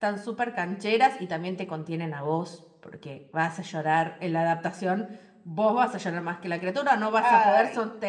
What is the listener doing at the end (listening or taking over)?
listening